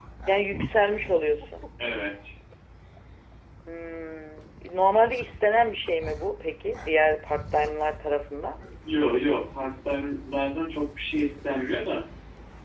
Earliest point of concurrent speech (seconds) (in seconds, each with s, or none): none